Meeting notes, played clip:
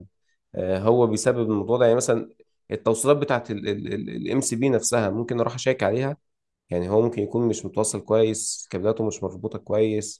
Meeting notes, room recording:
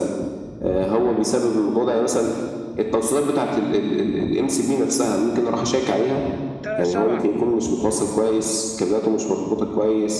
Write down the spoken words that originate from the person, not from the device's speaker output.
آه، سبعة

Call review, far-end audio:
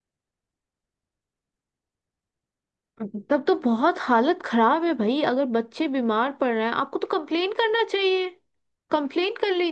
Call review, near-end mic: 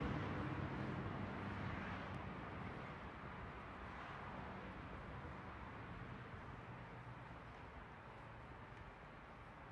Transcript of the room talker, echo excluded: none

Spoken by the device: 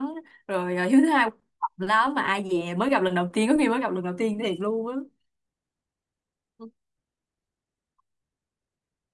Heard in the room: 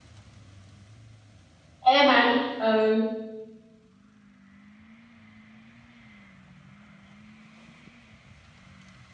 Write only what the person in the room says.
em mà ừ

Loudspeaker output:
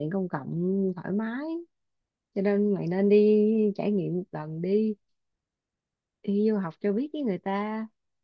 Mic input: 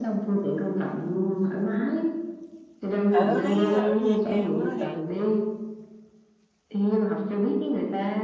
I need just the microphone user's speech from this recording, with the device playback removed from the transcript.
Tại tao thấy á, ở Việt Nam á thì

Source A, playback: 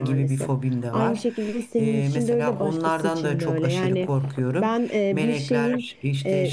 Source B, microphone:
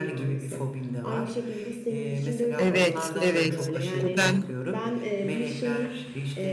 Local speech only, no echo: Evet, evet. O ben

